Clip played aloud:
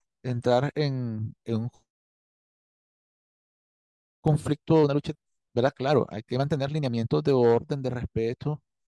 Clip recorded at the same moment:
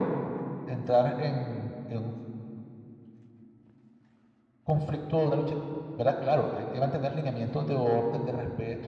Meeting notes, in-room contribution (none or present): none